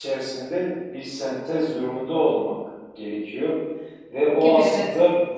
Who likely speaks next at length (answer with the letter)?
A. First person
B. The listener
A